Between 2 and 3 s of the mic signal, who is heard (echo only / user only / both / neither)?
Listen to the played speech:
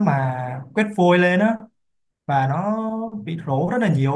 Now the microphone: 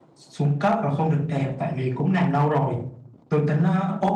user only